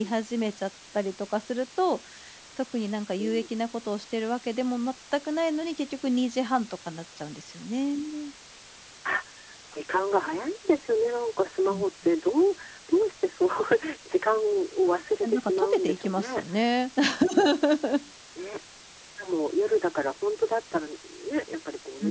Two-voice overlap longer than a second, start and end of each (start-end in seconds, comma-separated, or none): 15.2-16.4